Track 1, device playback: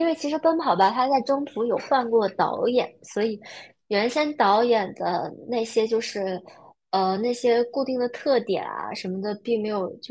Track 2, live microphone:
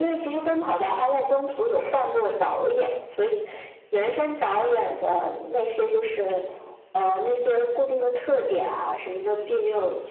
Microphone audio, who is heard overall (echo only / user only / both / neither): echo only